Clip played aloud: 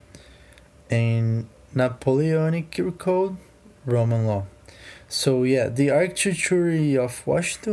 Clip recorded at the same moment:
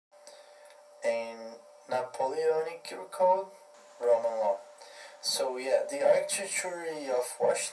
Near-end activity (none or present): none